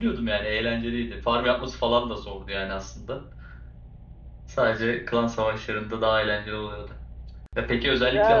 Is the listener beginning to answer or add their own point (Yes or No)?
No